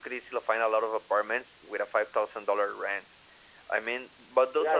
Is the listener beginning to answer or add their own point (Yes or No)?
Yes